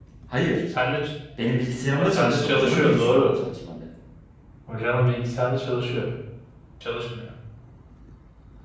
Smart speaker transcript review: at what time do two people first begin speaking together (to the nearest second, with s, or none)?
2 s